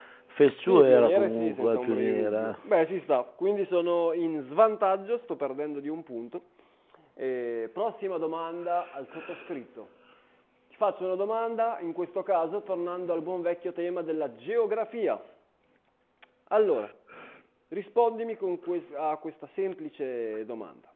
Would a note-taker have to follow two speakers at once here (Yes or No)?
Yes